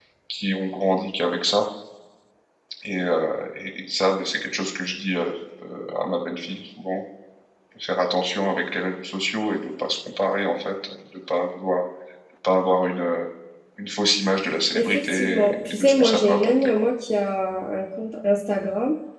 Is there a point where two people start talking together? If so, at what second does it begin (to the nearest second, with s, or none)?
15 s